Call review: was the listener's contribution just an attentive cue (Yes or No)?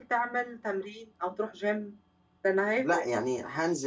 No